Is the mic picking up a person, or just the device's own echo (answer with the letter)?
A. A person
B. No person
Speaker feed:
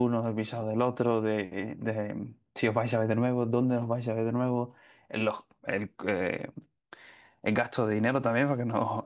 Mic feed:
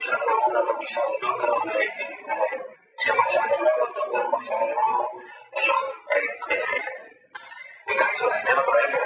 B